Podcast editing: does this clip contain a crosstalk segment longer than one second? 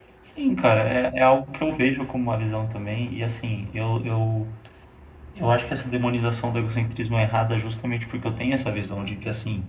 No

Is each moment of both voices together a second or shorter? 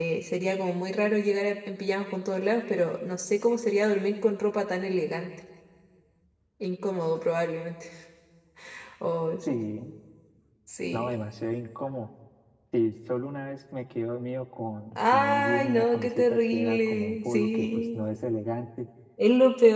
No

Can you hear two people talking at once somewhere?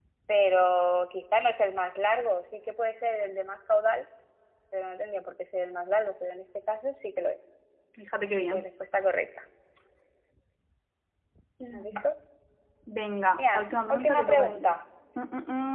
Yes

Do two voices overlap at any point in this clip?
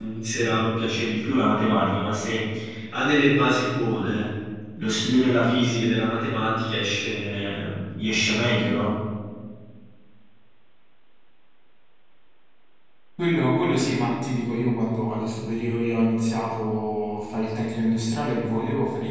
No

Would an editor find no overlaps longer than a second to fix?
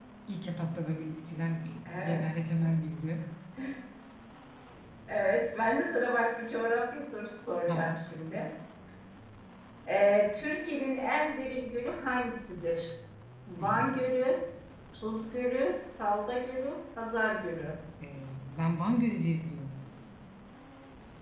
Yes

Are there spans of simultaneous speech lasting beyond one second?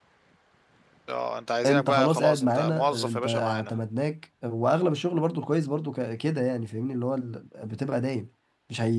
Yes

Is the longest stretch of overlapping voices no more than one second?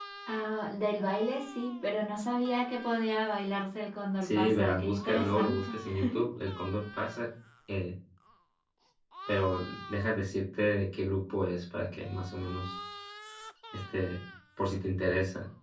No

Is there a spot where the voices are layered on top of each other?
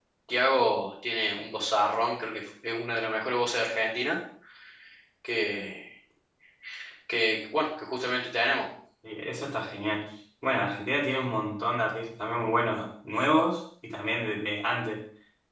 No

